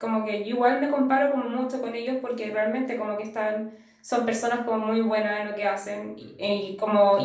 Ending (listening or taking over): listening